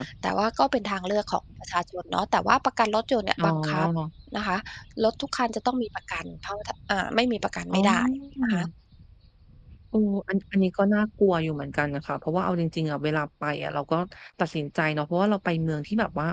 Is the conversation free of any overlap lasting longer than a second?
Yes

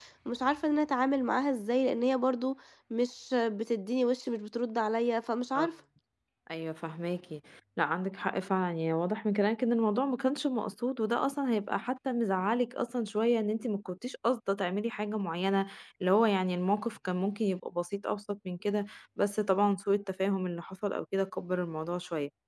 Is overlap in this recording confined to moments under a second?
Yes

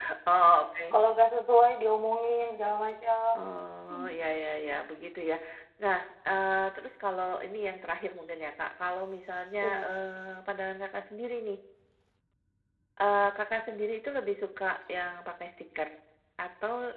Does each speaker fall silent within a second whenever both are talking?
Yes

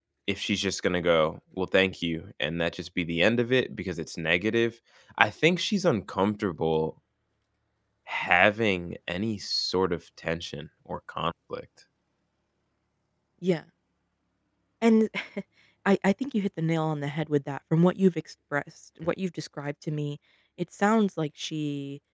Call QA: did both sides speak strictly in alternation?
Yes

